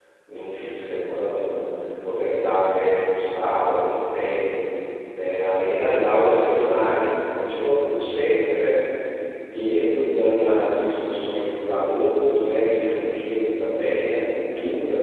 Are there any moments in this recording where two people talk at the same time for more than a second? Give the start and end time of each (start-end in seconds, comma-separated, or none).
none